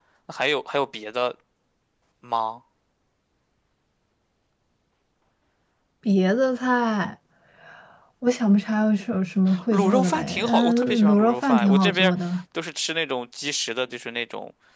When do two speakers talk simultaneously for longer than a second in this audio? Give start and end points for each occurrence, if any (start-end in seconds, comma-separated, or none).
9.7-12.1